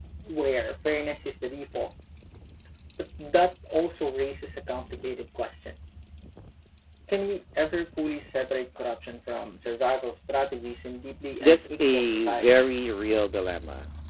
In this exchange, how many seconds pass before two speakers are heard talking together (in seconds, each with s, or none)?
11.4 s